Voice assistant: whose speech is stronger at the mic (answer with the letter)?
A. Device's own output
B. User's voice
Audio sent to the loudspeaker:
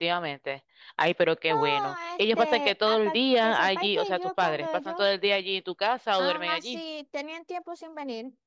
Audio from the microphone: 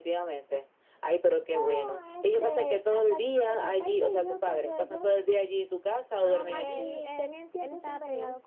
A